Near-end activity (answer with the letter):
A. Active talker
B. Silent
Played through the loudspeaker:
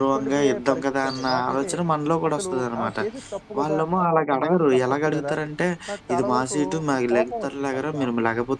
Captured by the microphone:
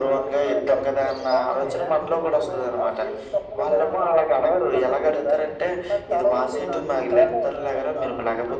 A